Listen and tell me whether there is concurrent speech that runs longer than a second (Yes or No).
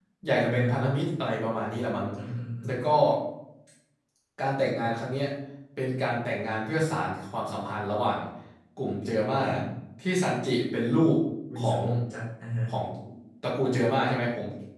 No